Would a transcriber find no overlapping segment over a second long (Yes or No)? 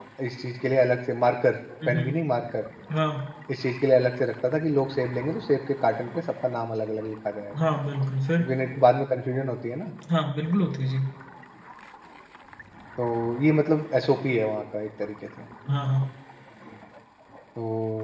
Yes